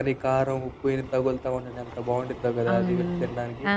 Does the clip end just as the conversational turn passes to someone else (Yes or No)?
Yes